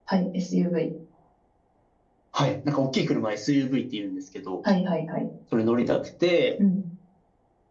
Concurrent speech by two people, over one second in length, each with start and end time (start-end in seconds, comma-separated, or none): none